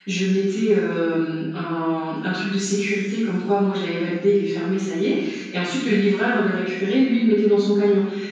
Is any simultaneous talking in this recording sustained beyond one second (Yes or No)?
No